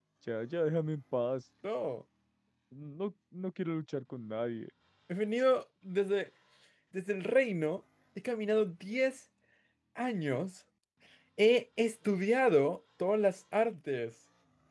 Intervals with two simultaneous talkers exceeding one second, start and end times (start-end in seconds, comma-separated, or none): none